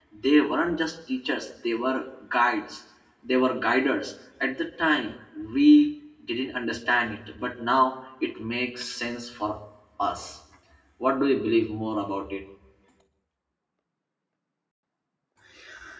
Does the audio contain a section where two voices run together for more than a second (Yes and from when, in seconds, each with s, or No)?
No